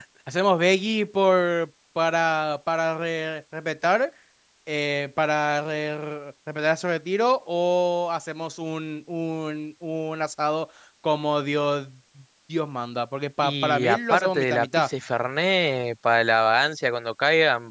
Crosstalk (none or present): present